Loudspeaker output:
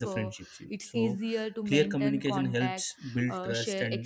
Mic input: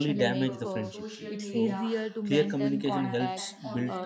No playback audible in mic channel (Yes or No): No